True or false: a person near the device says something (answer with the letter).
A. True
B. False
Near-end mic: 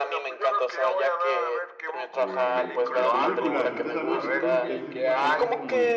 A